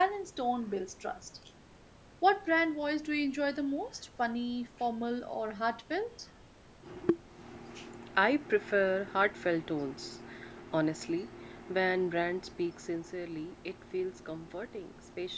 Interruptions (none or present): none